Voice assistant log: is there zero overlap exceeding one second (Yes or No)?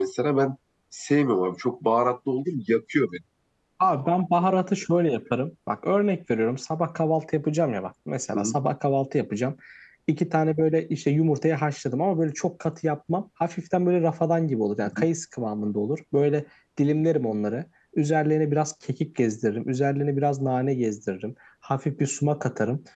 Yes